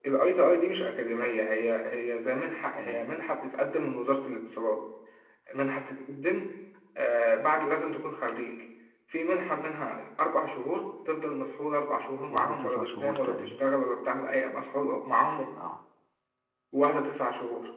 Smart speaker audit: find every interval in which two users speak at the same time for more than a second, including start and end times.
12.3-13.6

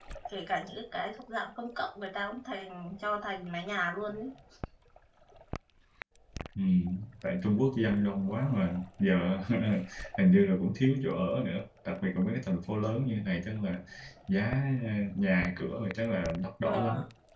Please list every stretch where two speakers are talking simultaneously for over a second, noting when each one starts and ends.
none

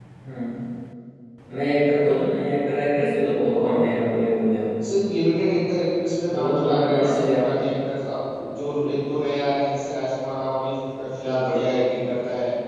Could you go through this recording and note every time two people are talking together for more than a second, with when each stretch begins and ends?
6.3-7.6

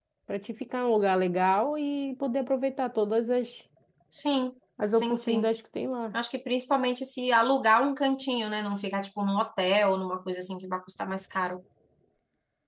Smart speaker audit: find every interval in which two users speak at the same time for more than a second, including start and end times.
none

